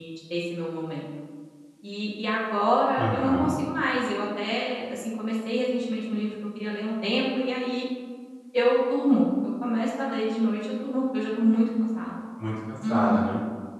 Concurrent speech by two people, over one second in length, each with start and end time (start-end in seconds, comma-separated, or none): none